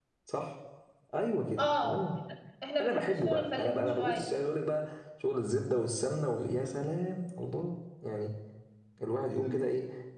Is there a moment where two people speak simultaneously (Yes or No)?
Yes